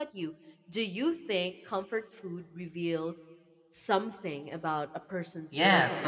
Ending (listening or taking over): taking over